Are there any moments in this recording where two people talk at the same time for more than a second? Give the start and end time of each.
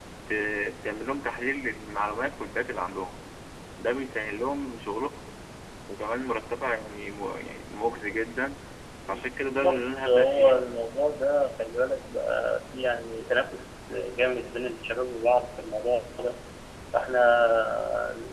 9.1-10.7

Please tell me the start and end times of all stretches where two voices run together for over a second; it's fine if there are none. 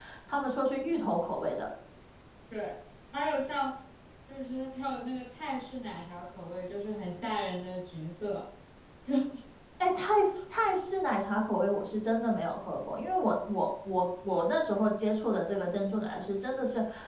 none

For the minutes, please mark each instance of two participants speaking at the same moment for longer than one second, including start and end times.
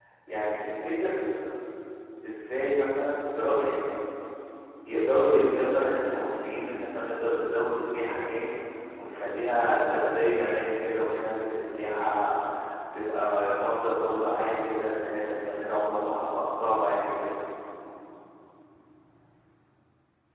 none

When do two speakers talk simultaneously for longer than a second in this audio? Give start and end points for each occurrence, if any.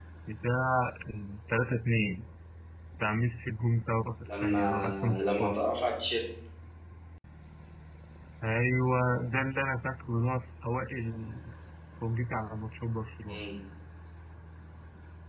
4.3-5.6

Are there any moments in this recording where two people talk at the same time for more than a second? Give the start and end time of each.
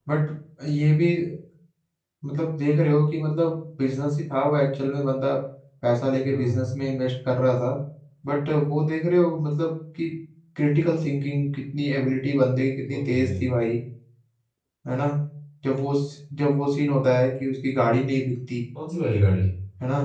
none

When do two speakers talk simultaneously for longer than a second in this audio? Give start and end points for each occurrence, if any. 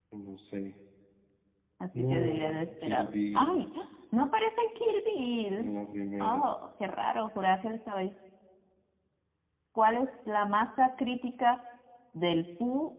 2.0-3.6

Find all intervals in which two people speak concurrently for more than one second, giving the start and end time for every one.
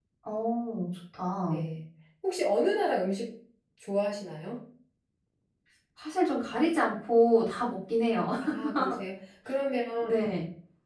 none

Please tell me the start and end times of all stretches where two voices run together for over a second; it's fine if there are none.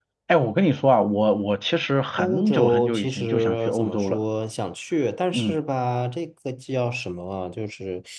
2.2-4.2

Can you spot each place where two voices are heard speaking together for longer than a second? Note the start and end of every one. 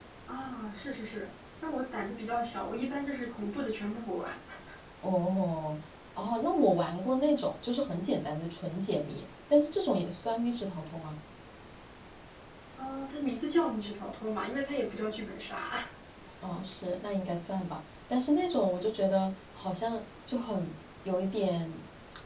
none

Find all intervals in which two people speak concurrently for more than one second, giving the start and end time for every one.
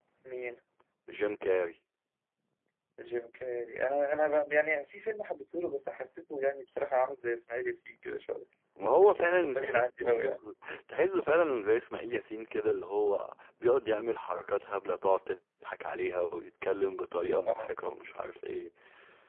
9.0-10.4

